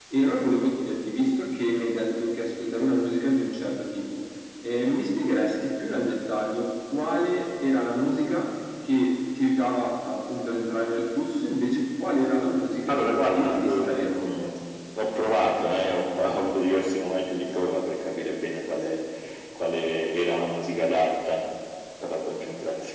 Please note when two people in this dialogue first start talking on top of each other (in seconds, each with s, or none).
12.9 s